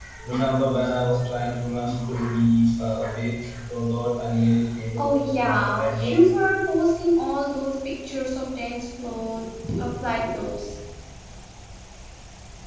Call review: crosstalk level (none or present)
present